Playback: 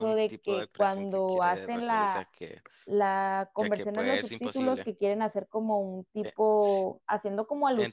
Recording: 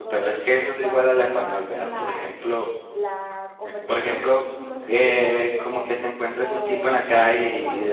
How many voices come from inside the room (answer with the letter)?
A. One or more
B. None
A